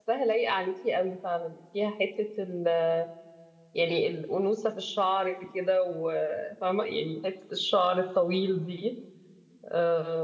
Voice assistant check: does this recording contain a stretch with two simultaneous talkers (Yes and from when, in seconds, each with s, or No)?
No